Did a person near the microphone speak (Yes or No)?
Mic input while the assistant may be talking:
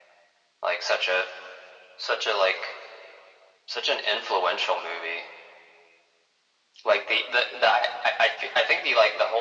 No